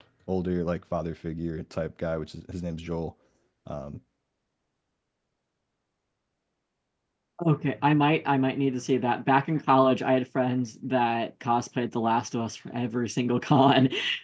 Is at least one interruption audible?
No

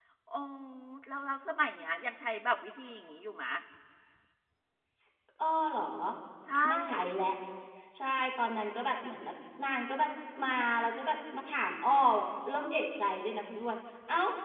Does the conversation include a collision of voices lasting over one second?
No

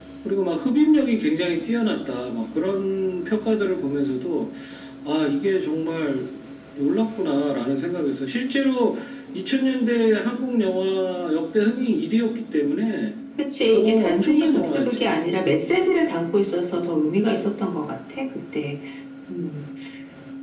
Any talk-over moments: Yes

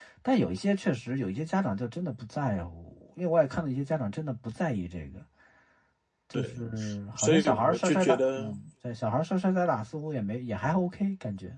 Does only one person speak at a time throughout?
No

